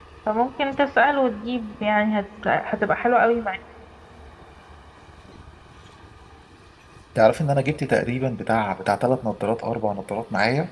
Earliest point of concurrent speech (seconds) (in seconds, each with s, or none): none